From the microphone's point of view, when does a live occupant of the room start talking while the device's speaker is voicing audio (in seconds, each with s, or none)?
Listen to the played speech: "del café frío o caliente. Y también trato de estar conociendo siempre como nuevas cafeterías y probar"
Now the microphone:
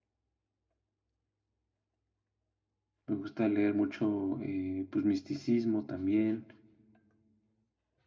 3.1 s